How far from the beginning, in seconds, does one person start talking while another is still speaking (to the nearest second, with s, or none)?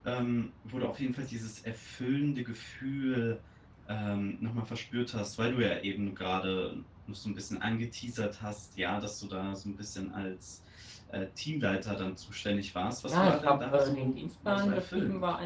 13 s